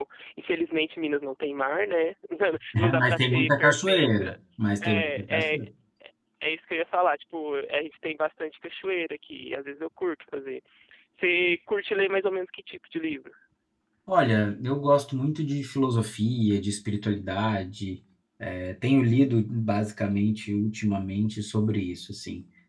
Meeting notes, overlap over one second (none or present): present